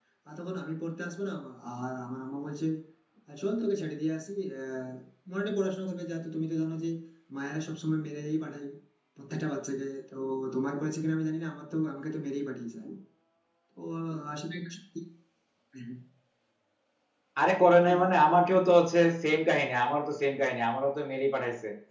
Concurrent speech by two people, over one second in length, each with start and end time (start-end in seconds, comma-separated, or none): none